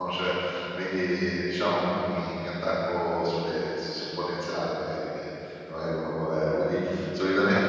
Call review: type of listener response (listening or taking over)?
listening